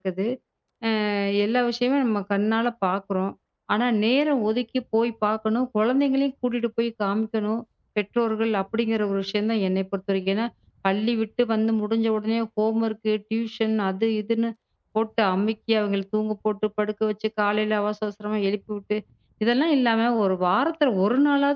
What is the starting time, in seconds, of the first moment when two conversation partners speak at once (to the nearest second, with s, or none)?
none